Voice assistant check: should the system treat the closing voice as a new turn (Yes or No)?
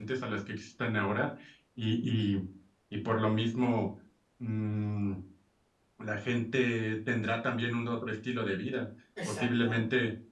No